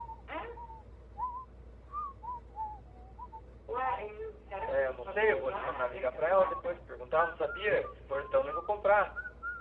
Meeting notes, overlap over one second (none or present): present